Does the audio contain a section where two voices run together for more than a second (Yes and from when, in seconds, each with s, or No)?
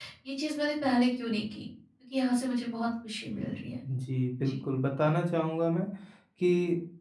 No